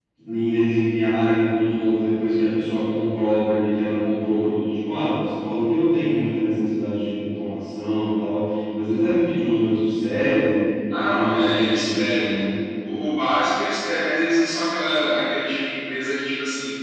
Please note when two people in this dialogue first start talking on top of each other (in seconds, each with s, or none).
10.9 s